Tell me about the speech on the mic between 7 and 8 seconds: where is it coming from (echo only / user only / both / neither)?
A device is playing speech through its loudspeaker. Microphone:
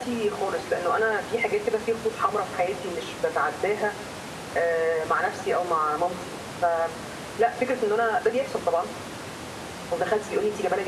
echo only